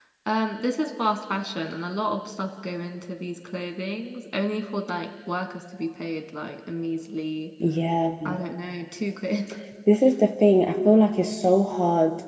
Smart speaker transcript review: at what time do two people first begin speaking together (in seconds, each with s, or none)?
none